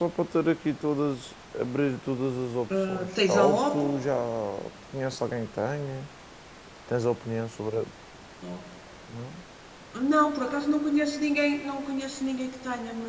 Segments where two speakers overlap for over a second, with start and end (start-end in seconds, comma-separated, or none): 2.7-3.9